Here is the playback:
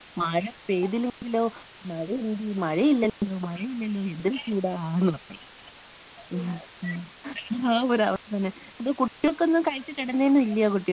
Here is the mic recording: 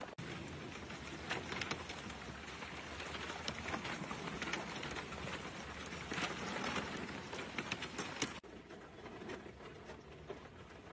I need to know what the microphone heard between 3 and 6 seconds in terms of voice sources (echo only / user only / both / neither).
neither